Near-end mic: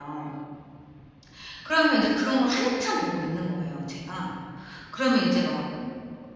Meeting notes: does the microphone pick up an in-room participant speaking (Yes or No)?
Yes